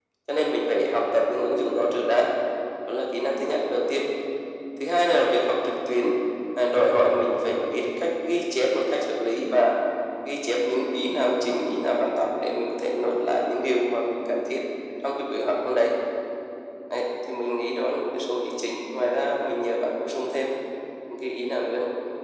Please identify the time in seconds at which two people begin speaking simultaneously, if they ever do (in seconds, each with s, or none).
none